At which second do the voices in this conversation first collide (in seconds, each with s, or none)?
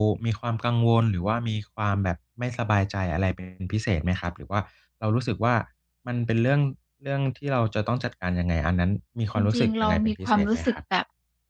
9.3 s